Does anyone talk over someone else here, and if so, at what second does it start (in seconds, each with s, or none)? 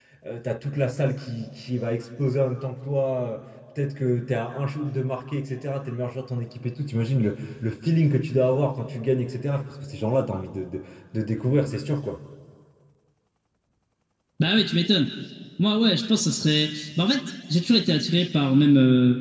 none